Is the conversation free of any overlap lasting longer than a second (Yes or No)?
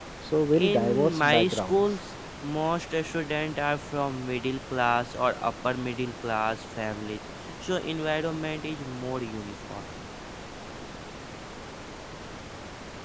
No